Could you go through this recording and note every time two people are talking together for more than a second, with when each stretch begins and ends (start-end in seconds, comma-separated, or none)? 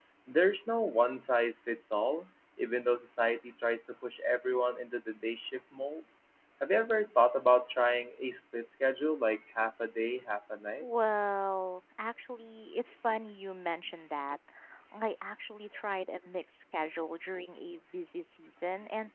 none